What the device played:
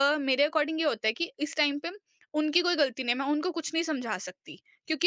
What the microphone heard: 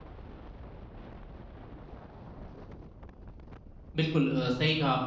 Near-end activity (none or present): present